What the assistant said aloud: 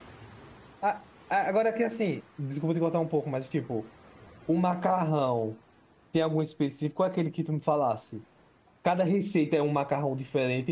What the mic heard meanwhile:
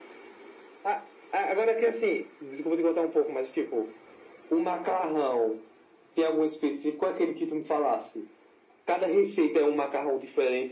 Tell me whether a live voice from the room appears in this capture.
No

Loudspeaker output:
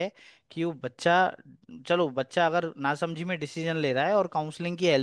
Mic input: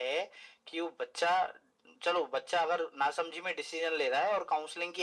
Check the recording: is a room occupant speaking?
No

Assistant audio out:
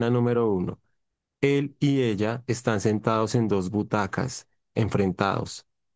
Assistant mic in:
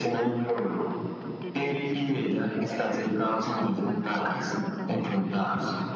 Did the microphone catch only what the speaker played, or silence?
No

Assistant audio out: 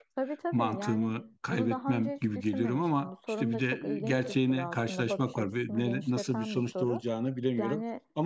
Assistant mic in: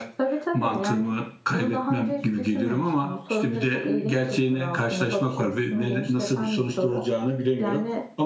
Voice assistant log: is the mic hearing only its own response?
Yes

